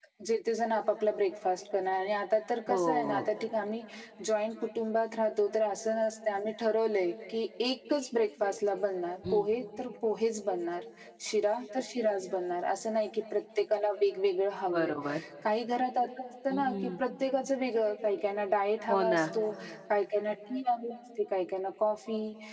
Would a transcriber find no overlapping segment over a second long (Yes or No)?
Yes